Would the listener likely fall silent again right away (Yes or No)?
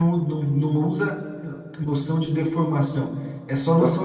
Yes